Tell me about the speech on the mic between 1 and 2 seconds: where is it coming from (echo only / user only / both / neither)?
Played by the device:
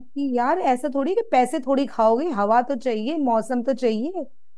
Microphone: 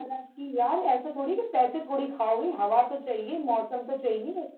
echo only